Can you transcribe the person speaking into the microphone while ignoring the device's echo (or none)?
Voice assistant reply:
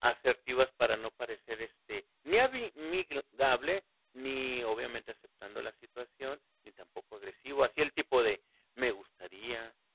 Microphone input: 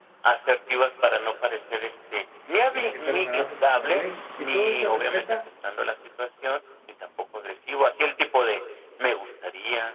y tiene que ser remunerado conforme a la ley. Si todo se respeta,